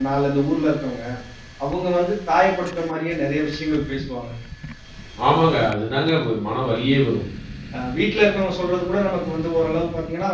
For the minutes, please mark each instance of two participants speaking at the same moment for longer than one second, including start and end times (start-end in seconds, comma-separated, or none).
none